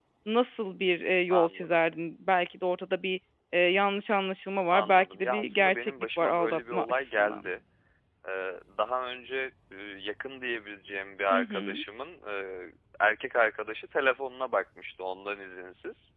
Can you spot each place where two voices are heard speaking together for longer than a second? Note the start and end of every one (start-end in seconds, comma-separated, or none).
4.7-7.5